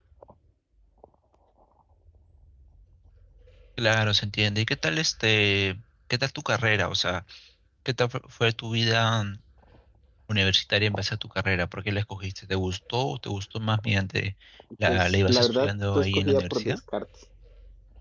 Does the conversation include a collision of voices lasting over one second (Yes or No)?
Yes